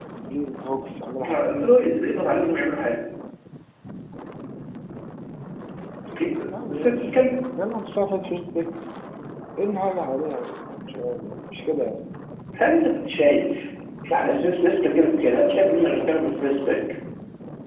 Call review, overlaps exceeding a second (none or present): none